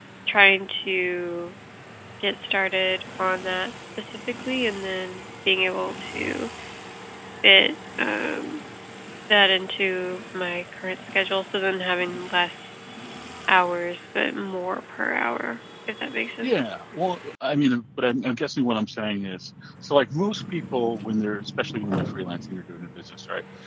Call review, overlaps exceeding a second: none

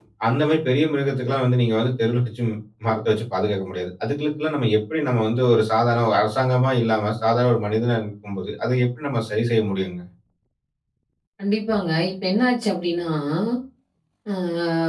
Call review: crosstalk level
none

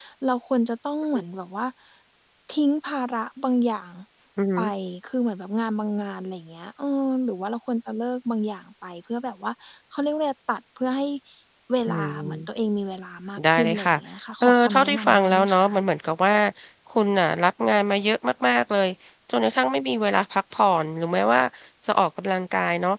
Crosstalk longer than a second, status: present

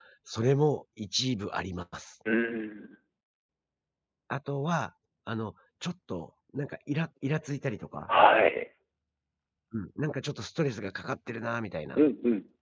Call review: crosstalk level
none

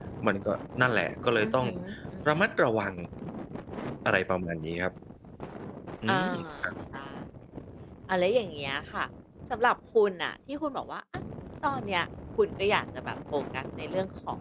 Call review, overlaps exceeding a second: none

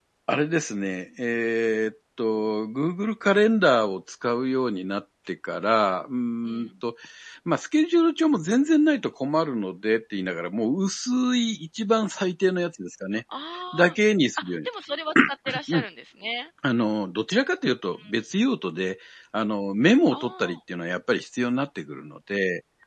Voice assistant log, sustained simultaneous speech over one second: none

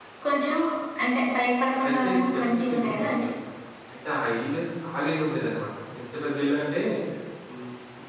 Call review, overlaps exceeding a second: present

